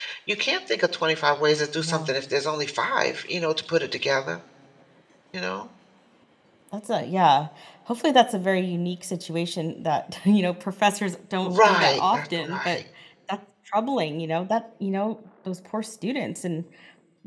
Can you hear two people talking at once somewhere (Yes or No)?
Yes